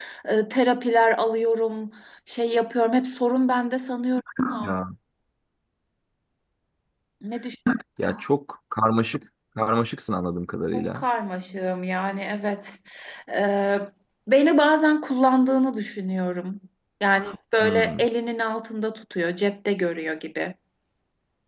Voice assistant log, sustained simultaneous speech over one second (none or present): none